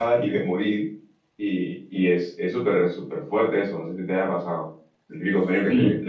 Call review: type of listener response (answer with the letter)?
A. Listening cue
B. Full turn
B